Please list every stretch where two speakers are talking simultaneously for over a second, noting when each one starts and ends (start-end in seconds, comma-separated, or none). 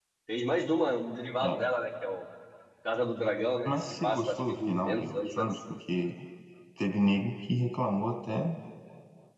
3.6-5.5